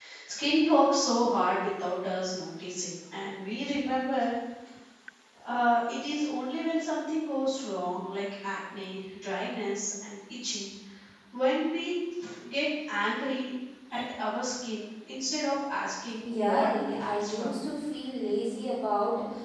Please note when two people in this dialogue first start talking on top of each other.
16.2 s

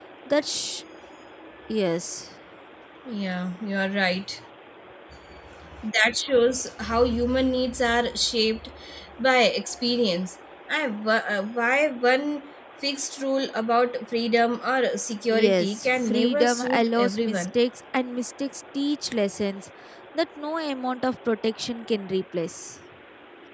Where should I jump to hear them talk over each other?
15.3 s

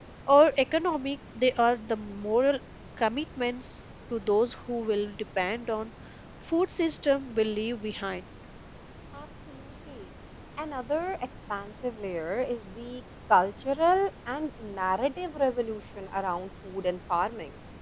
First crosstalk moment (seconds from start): none

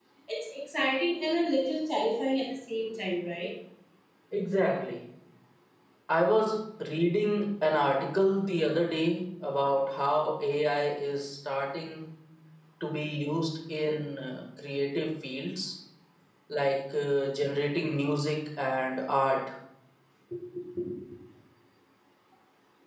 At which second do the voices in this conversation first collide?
none

